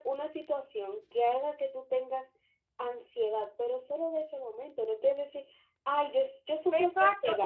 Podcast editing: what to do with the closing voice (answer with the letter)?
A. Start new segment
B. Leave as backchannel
A